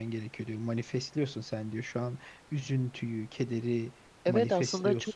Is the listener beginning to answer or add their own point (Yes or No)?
Yes